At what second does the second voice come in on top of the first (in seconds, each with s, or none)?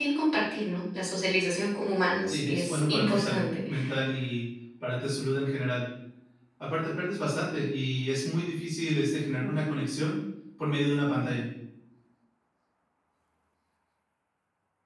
2.3 s